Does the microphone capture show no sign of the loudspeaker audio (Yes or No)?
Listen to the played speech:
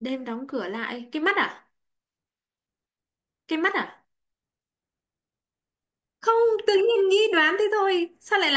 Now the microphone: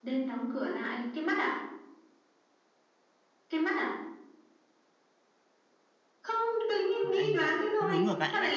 No